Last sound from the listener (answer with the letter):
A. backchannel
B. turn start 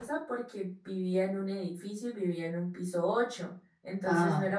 A